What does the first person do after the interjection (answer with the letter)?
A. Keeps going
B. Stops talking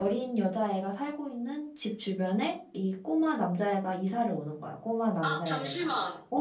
B